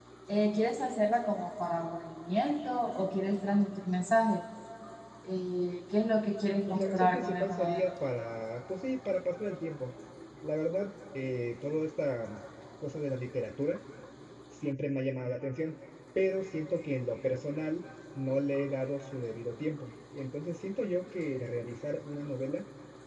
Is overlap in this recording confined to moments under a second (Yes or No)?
No